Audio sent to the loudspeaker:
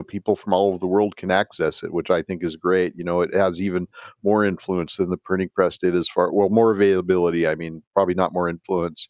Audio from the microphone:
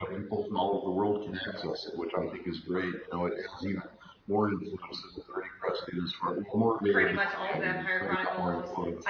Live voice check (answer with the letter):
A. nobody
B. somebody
B